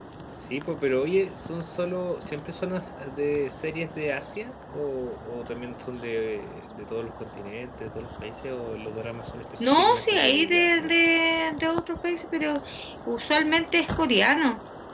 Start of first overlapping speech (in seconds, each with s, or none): 9.6 s